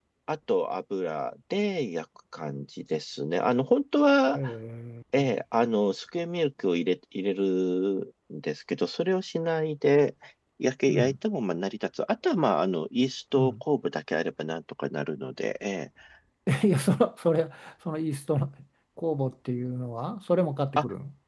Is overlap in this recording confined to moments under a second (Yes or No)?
Yes